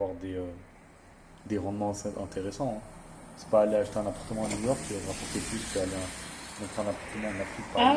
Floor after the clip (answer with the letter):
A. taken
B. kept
A